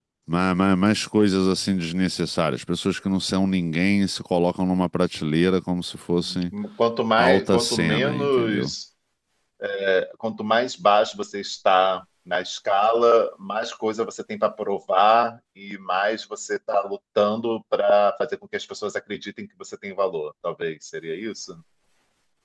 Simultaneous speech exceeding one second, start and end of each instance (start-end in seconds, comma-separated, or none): 7.2-8.7